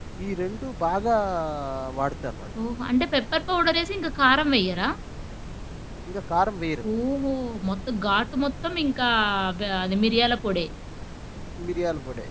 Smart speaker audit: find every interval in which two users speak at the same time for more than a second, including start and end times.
none

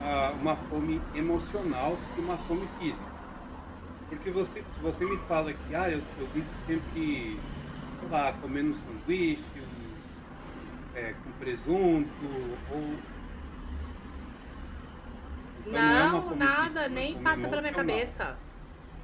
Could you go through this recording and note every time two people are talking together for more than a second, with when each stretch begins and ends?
15.7-18.1

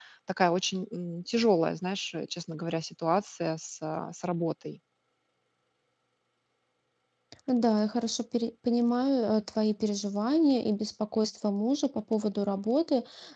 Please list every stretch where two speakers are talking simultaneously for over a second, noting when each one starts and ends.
none

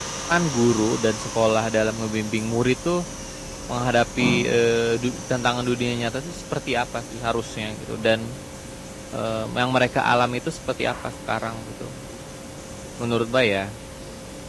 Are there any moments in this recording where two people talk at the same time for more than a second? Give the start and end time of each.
none

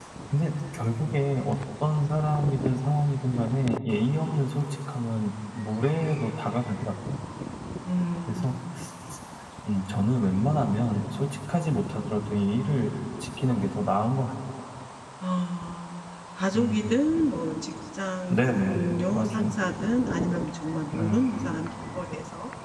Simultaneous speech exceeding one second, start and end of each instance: 18.3-19.5

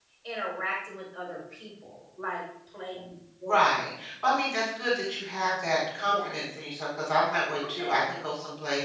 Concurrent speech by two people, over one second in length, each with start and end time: none

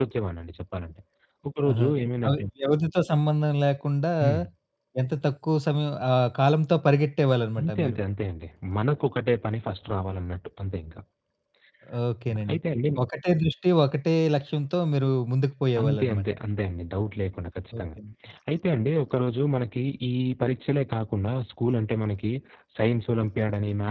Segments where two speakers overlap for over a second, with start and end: none

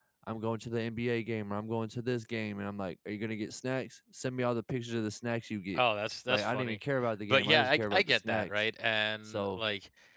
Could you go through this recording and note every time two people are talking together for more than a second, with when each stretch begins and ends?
7.3-8.5

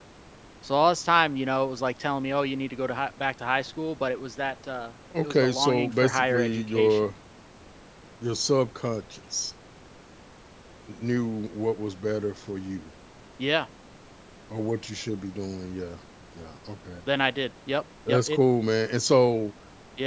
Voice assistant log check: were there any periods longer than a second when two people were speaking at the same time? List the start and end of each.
5.2-7.1

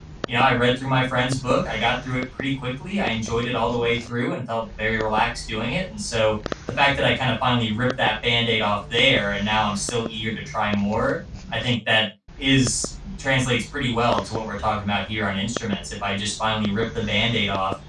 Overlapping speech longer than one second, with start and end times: none

